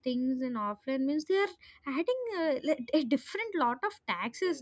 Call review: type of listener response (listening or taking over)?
listening